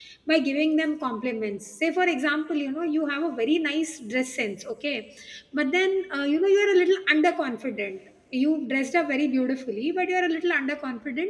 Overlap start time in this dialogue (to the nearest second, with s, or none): none